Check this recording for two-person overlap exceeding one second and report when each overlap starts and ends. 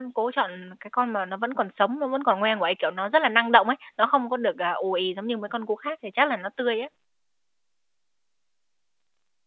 none

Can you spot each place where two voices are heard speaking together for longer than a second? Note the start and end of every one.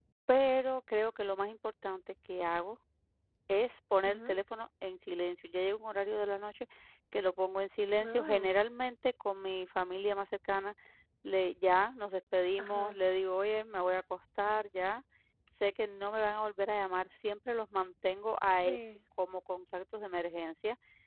none

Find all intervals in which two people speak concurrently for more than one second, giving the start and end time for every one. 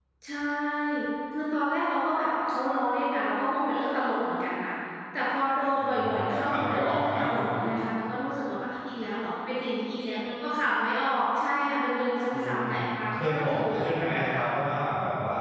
5.7-7.2, 13.1-14.4

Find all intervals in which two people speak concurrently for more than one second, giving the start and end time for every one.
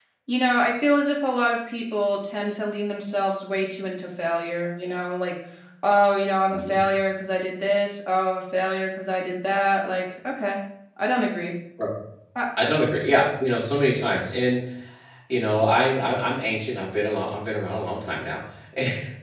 none

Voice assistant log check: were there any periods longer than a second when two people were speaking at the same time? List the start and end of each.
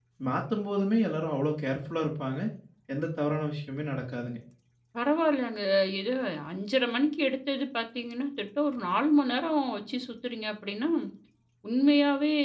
none

